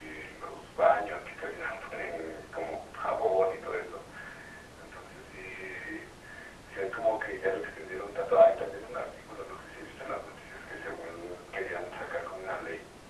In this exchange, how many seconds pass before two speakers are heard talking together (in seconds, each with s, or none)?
none